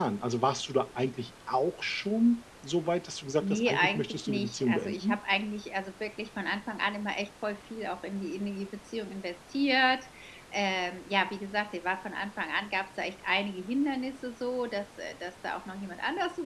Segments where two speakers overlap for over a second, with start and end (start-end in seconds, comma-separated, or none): 3.4-5.2